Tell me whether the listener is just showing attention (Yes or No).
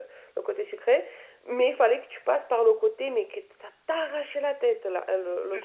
No